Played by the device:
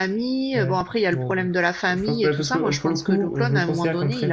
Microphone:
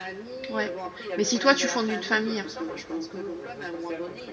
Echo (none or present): present